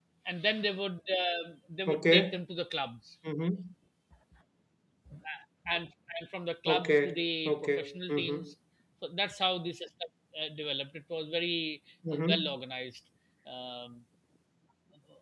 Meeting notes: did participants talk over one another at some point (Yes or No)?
Yes